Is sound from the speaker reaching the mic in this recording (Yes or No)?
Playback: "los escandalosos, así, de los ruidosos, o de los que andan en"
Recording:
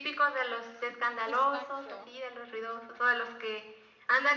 Yes